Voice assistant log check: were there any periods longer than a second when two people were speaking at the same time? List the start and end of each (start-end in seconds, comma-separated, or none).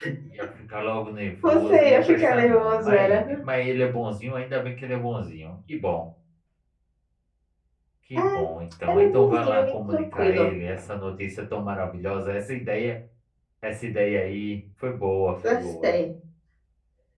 1.4-3.2, 8.9-10.5